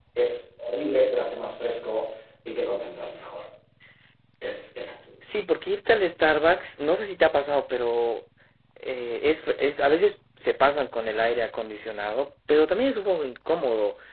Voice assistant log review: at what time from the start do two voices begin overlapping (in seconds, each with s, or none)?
none